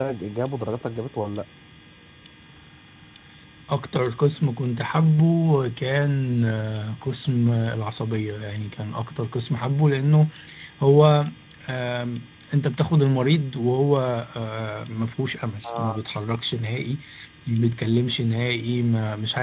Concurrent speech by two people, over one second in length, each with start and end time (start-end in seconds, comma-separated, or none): none